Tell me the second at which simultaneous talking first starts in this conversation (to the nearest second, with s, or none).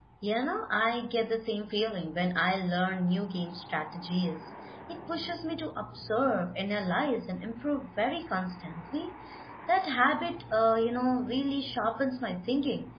none